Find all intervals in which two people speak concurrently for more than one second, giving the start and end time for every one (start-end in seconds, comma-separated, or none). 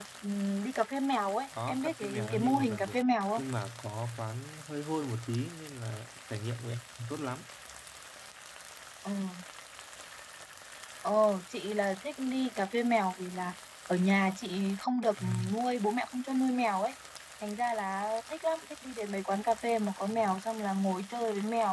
1.7-3.0